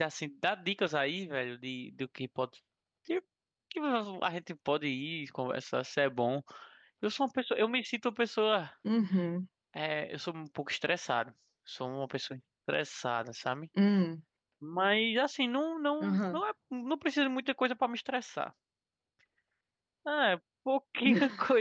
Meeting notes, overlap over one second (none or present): none